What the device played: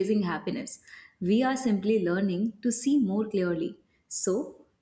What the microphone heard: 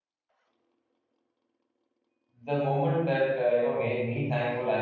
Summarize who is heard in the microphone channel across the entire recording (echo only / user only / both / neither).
user only